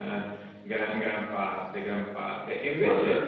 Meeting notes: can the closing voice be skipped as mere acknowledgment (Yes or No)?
Yes